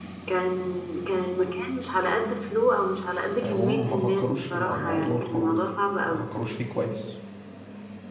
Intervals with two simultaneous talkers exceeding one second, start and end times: 3.4-5.6

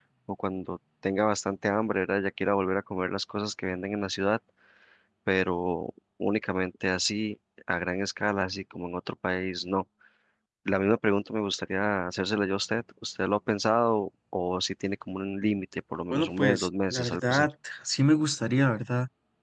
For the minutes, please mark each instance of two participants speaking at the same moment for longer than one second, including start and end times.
16.1-17.5

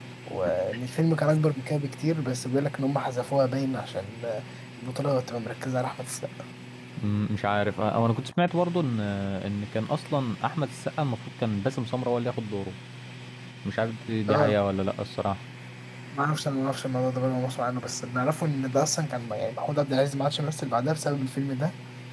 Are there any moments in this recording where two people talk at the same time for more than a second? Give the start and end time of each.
none

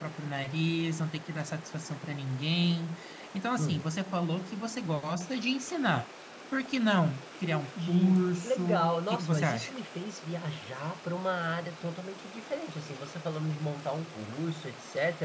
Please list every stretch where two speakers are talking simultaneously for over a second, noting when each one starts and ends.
7.5-9.7

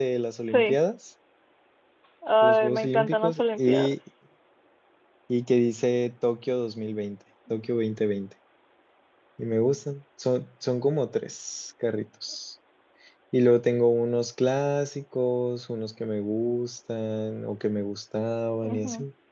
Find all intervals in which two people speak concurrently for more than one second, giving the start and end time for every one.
2.4-4.0

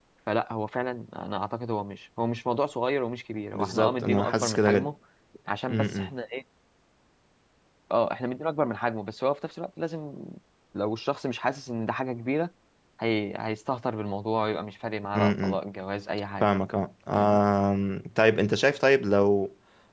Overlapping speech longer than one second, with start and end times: 3.5-4.9

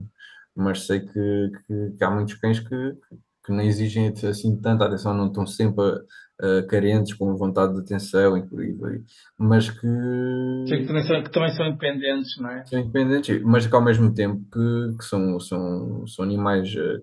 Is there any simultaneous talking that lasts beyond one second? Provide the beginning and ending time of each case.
none

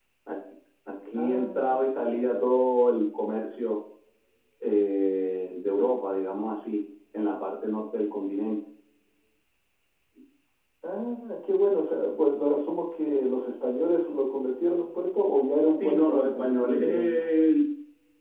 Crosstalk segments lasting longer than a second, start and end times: 1.1-2.6, 15.8-17.3

